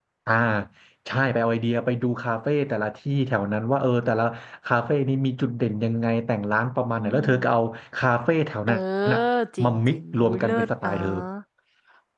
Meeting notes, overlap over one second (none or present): present